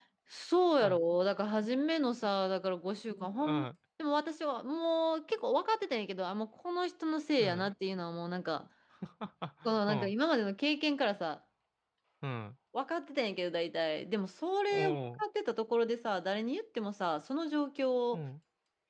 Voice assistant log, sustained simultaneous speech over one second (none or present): none